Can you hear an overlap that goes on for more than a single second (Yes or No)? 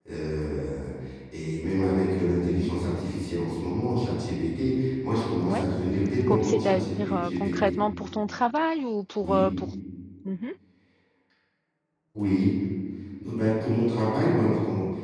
Yes